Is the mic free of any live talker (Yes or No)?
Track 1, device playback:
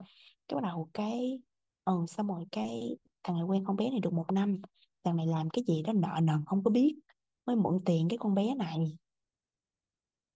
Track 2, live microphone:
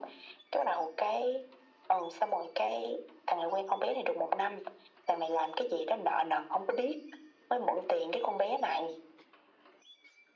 Yes